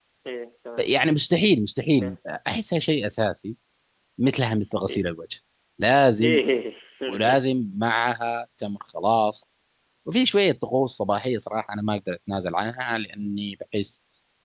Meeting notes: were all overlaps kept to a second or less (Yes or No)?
Yes